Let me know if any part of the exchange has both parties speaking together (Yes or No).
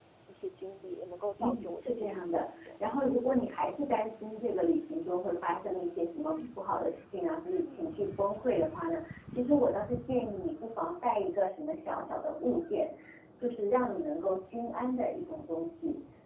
Yes